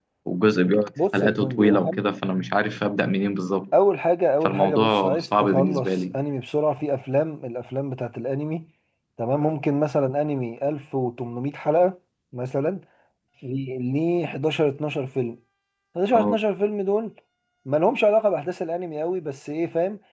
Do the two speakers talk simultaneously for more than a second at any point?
Yes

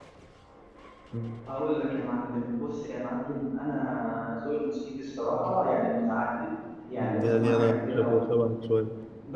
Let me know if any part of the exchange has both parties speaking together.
Yes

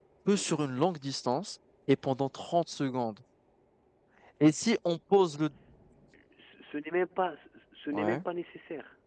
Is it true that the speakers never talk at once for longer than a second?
Yes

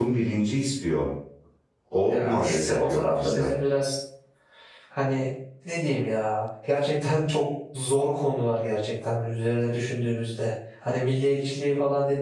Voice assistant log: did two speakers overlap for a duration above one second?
Yes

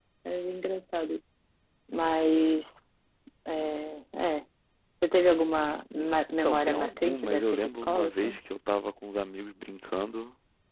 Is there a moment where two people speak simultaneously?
Yes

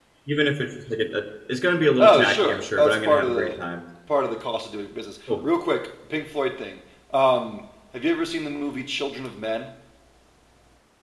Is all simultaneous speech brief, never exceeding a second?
No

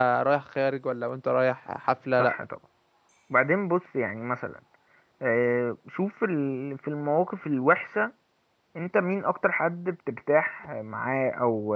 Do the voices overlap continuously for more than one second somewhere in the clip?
No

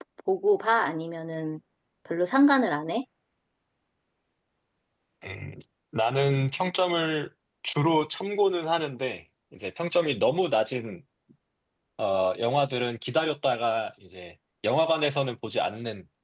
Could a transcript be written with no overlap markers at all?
Yes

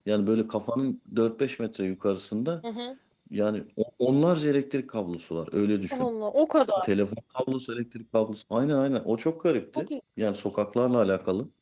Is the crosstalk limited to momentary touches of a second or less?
Yes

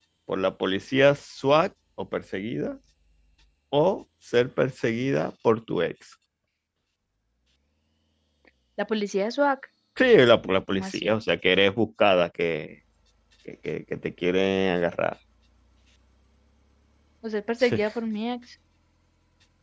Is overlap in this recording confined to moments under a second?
Yes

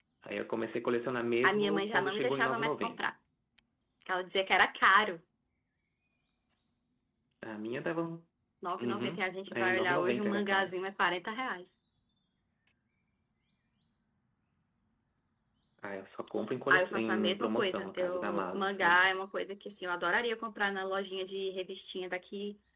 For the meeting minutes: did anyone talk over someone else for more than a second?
Yes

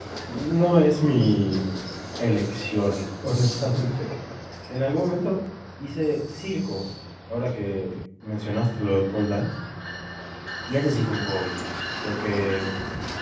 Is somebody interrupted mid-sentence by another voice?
No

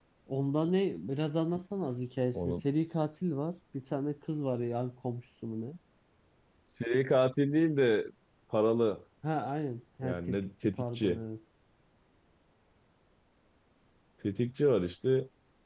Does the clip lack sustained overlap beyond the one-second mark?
No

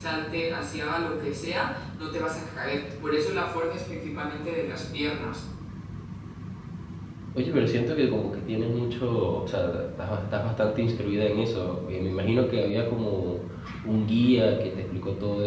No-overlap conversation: Yes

